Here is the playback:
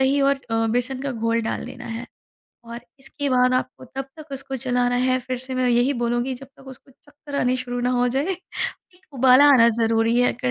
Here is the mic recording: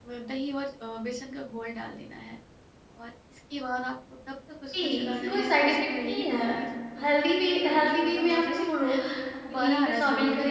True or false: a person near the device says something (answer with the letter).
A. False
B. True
B